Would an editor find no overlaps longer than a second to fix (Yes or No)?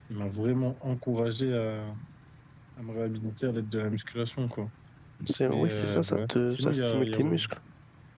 No